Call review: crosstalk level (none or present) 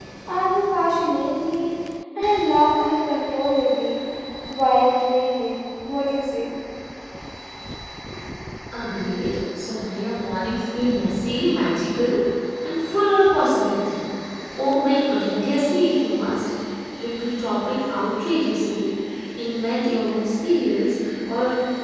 none